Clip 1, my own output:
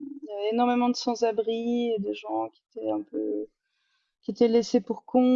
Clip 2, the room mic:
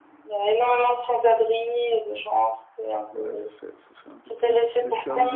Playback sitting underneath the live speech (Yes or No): No